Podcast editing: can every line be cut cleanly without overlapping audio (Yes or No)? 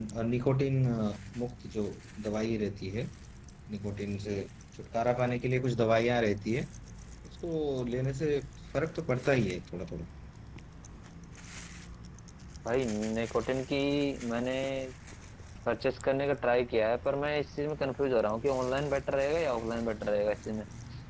Yes